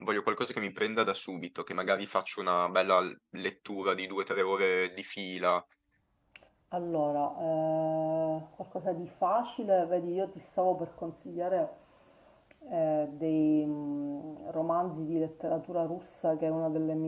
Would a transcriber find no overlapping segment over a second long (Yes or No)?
Yes